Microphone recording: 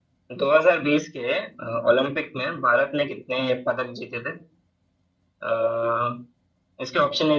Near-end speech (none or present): none